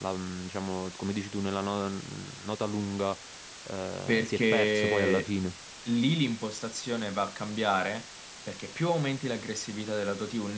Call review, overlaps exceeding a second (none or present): present